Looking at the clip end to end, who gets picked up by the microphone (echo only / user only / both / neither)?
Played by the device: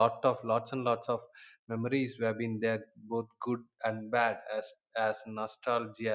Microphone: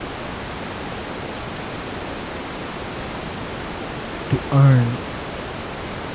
user only